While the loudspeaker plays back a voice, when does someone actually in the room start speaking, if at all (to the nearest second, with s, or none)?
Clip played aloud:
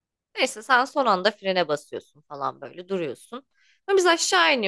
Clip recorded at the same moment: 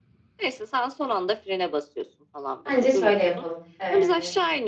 3 s